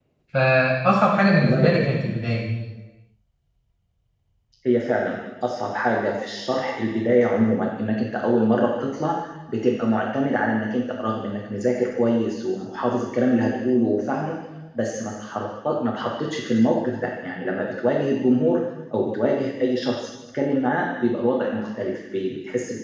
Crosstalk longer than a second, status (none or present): none